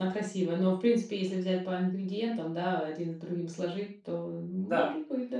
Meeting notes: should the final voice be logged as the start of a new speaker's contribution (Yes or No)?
Yes